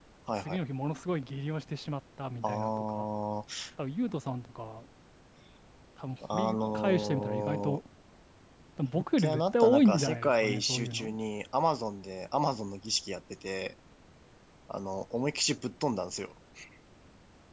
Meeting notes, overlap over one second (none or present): present